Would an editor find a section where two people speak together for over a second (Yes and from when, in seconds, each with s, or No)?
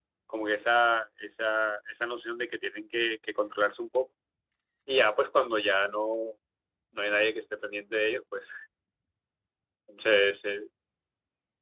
No